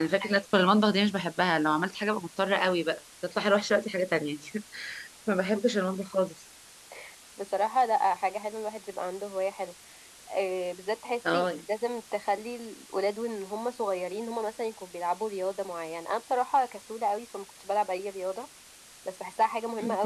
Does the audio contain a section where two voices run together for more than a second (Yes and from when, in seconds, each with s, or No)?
No